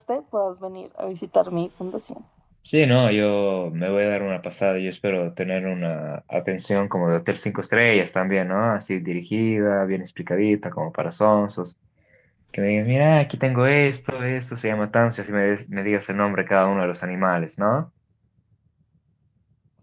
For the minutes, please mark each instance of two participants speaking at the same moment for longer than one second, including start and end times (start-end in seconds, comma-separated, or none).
none